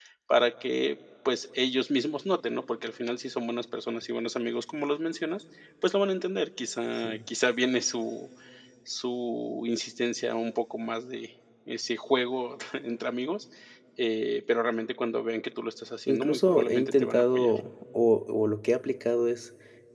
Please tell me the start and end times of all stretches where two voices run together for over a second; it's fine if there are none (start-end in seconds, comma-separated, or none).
16.1-17.5